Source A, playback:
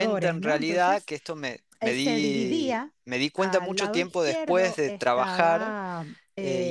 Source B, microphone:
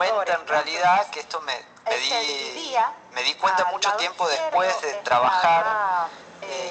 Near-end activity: none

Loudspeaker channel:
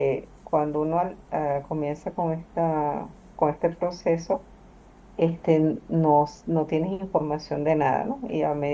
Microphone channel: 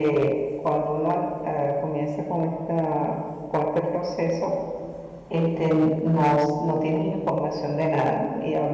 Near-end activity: none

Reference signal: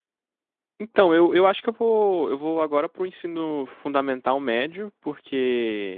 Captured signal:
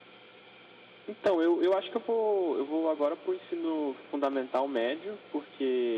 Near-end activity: none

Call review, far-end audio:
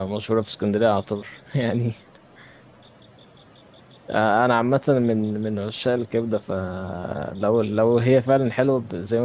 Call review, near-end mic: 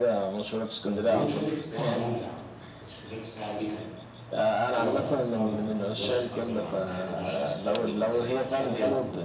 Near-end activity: present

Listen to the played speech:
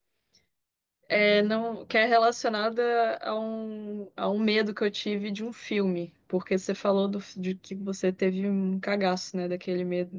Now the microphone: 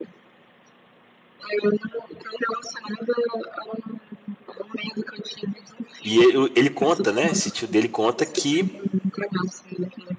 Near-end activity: present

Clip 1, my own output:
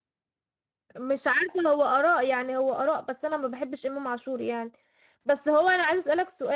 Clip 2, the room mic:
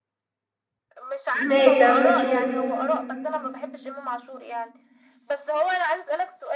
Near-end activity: present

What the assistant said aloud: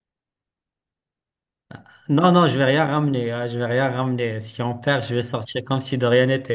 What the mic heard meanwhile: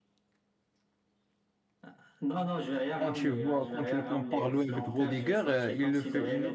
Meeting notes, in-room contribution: present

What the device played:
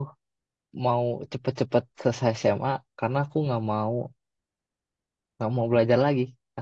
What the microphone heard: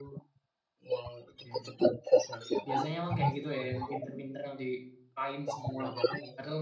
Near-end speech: present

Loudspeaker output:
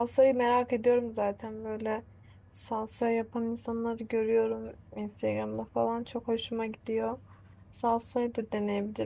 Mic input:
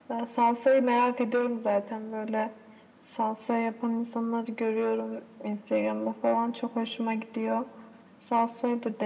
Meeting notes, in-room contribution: none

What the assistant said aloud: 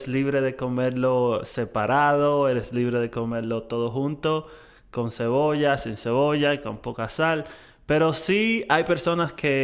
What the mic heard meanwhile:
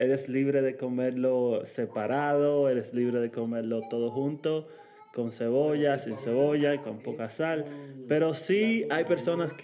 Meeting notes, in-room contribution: present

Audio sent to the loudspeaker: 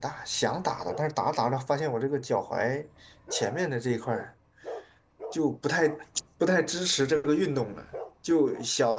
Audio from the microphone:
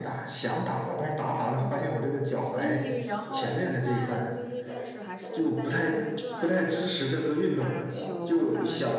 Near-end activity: present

